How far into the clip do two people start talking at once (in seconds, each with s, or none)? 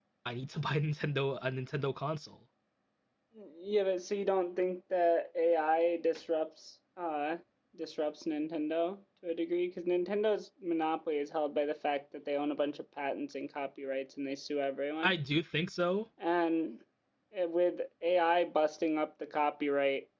none